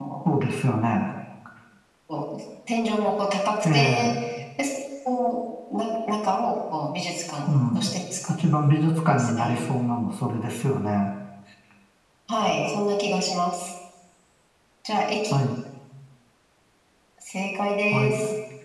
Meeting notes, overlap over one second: none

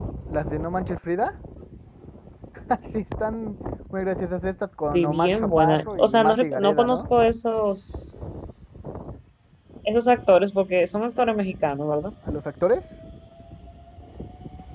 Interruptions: present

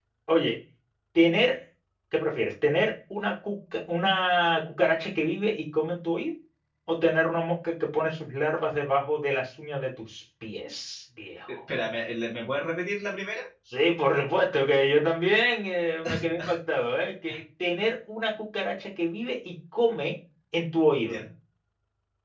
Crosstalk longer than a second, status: none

